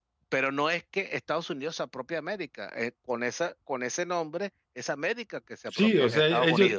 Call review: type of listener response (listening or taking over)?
taking over